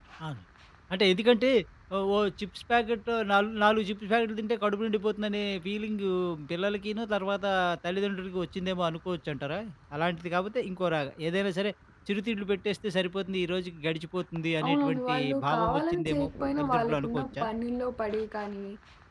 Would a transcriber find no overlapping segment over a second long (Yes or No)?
No